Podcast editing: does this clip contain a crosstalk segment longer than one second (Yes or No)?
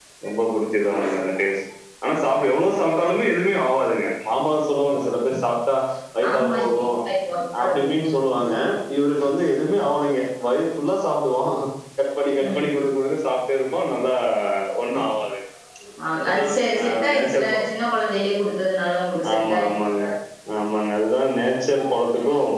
Yes